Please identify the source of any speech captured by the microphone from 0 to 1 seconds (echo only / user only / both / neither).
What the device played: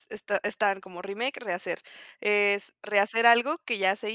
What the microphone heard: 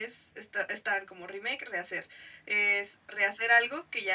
echo only